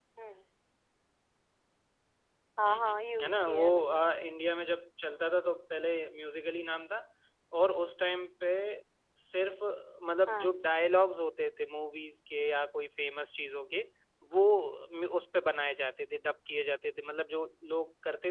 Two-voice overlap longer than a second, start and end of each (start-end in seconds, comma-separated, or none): 2.7-4.0